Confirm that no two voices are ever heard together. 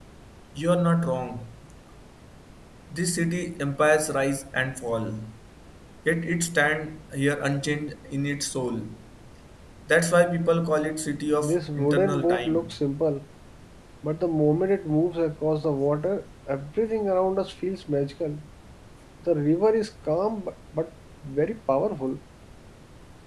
No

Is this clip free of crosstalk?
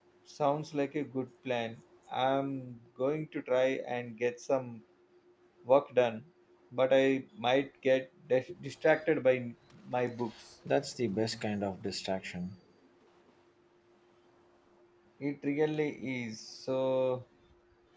Yes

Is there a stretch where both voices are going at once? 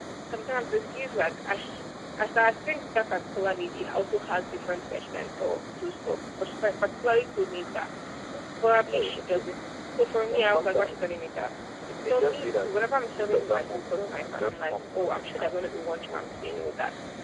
Yes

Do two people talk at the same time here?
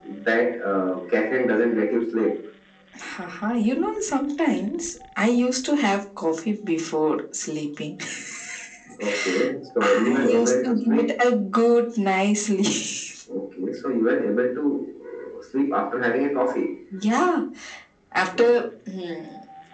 Yes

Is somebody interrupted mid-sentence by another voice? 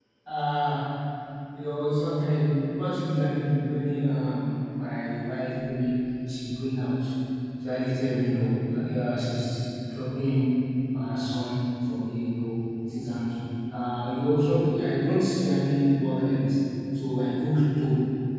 No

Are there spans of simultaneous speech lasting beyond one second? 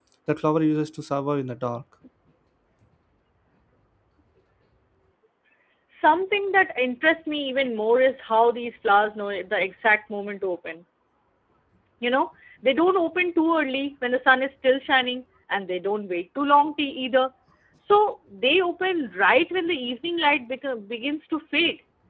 No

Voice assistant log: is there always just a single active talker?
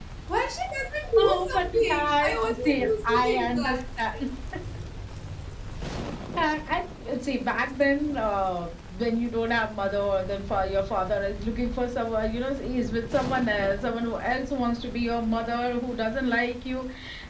No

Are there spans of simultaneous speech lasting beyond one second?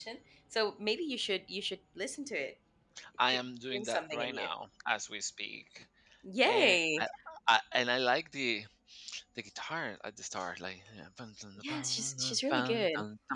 Yes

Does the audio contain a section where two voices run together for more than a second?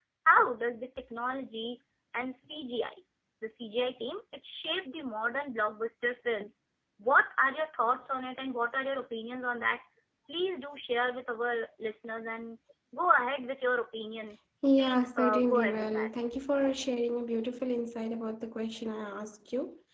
Yes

